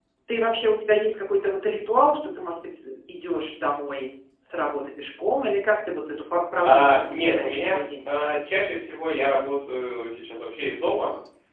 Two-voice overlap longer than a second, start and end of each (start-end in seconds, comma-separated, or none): 6.6-8.1